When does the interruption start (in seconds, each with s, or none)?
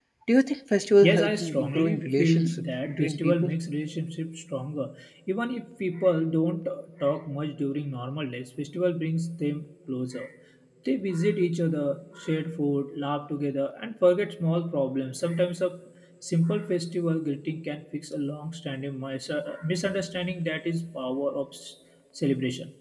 1.0 s